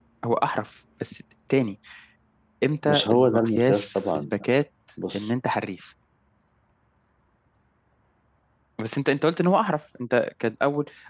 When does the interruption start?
3 s

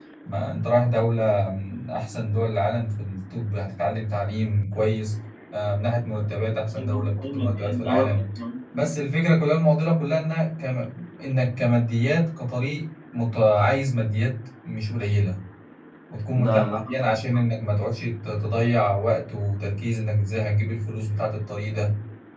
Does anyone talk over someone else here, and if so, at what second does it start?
7 s

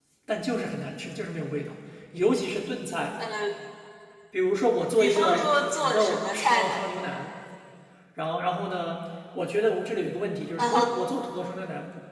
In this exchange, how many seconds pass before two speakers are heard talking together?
5 s

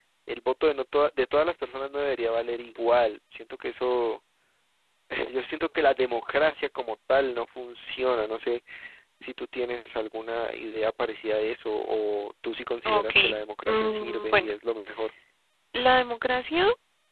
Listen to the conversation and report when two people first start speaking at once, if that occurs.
13 s

